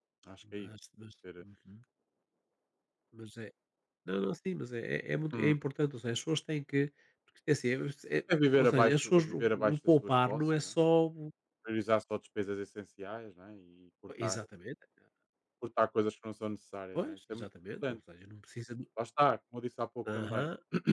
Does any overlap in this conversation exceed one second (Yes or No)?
Yes